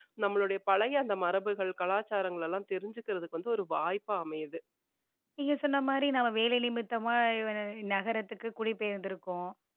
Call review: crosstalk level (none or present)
none